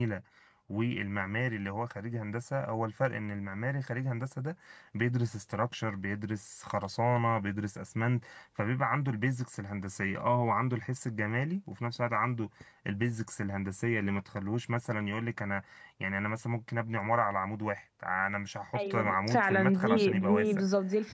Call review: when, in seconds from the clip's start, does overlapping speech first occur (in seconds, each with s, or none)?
18.7 s